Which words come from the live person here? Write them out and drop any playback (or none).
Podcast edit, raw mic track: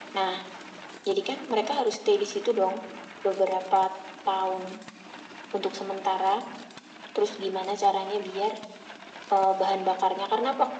none